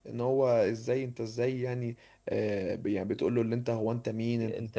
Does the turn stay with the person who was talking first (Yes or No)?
Yes